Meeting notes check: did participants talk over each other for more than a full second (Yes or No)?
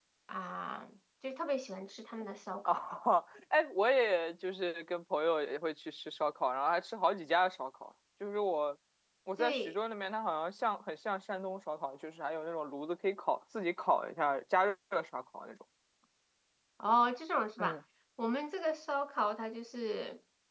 No